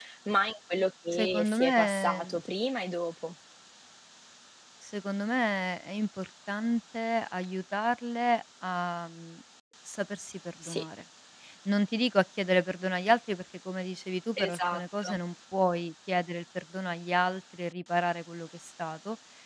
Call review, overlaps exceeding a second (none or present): present